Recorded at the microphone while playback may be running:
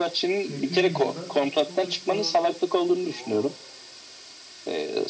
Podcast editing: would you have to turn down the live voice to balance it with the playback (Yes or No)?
No